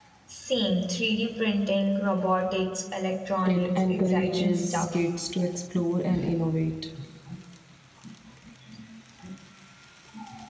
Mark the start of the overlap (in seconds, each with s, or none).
3.4 s